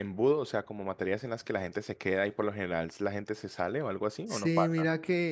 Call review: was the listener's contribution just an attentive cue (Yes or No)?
No